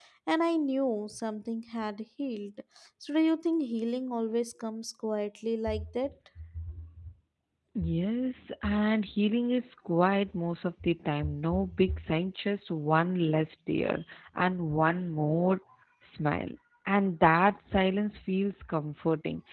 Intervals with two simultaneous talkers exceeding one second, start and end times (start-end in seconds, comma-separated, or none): none